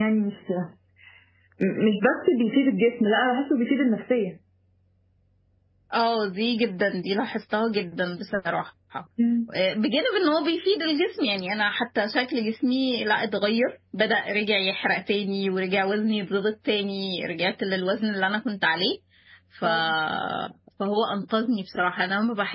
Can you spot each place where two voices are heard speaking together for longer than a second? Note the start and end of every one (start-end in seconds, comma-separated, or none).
none